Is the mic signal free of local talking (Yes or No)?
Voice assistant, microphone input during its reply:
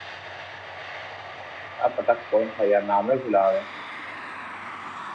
No